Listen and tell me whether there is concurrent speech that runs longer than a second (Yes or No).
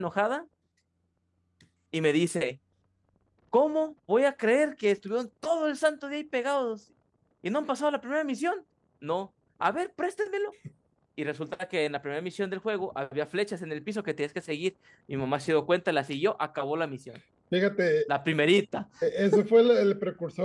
No